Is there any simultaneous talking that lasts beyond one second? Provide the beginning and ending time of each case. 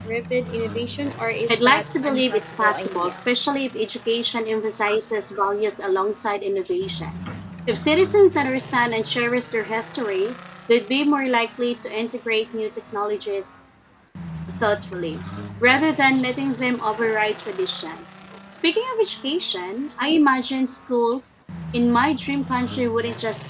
1.5-3.2

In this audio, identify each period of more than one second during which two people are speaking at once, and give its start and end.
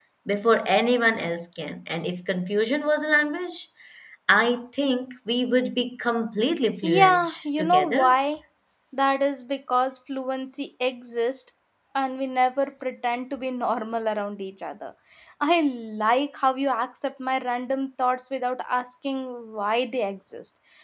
6.8-8.2

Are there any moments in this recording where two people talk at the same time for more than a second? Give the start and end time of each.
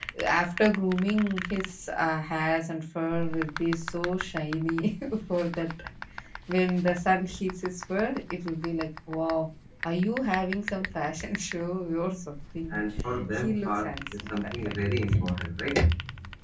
13.3-14.8

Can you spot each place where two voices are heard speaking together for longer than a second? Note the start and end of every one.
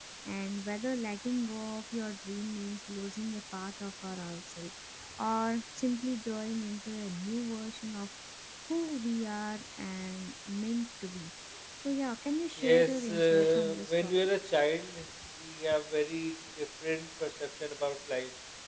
12.6-14.1

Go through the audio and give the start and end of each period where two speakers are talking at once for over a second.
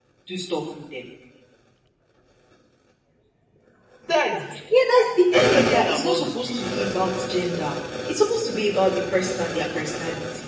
5.3-6.7

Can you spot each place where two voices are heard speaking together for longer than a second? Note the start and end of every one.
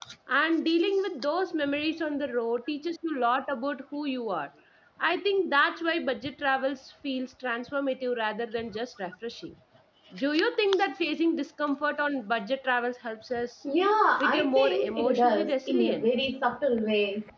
14.2-16.1

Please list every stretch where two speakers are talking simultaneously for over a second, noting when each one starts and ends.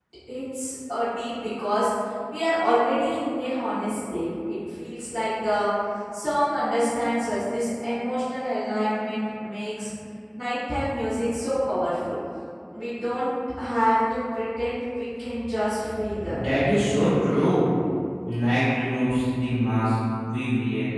none

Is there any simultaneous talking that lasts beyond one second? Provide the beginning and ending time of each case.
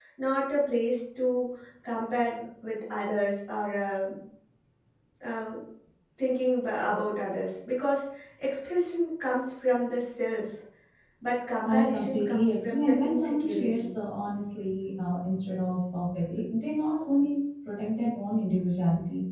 11.6-13.9

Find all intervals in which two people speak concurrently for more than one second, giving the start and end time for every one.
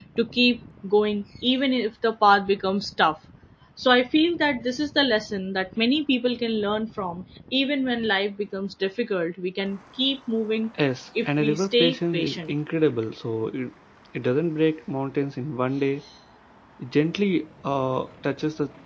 11.3-12.5

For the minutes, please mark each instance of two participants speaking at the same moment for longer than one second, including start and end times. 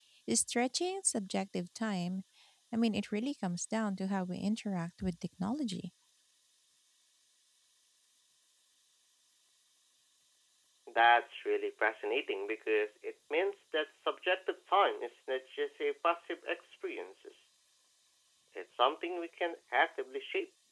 none

